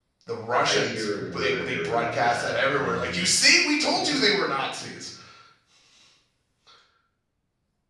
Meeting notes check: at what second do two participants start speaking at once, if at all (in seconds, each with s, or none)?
0.6 s